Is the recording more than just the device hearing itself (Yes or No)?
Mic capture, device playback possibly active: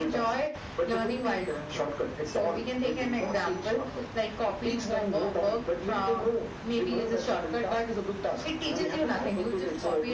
No